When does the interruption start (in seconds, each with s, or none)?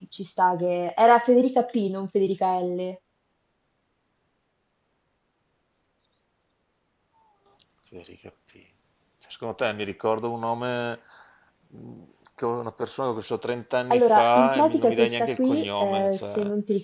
13.9 s